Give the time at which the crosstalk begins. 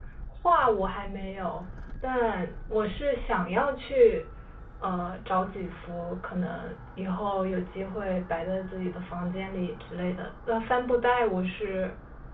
none

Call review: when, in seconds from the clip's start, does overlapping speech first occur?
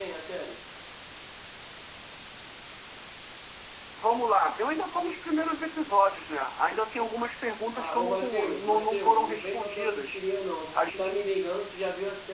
7.7 s

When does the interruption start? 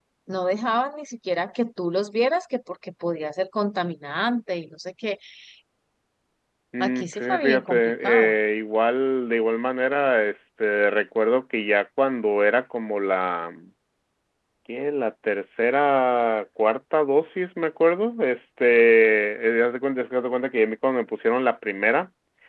6.8 s

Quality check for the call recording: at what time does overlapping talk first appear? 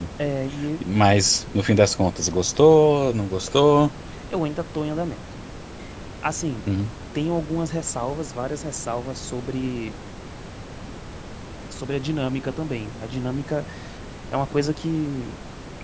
none

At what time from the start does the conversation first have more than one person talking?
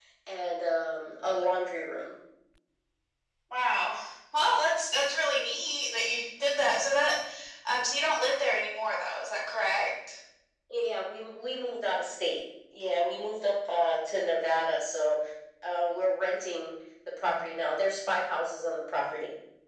none

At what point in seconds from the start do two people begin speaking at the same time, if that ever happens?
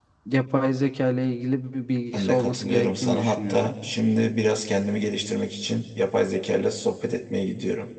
2.1 s

